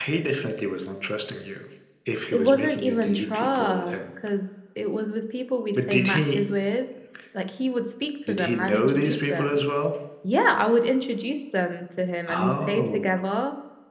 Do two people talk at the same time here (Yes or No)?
Yes